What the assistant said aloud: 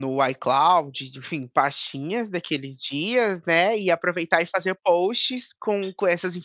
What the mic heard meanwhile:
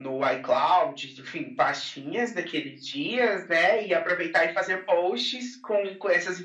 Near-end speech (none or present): none